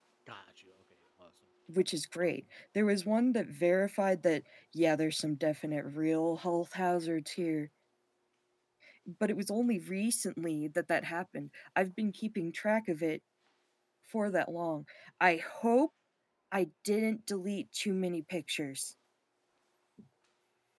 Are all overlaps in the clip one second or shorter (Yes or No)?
Yes